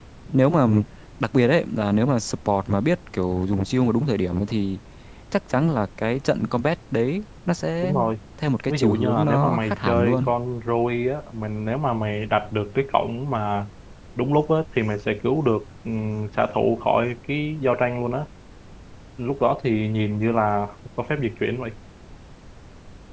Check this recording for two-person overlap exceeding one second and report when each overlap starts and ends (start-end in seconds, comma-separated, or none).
8.7-10.2